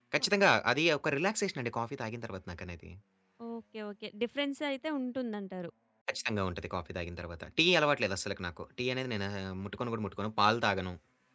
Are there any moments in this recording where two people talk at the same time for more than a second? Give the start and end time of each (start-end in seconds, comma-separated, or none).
none